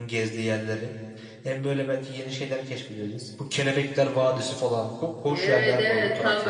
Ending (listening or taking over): taking over